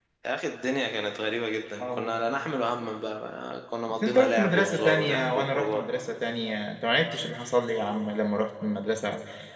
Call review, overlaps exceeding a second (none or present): present